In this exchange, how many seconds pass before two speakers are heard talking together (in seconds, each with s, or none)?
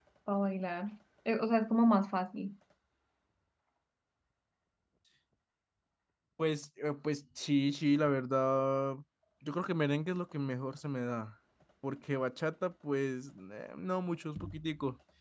none